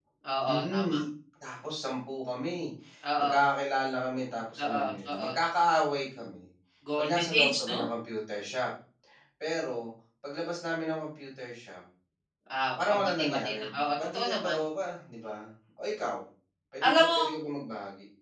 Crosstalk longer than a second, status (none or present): present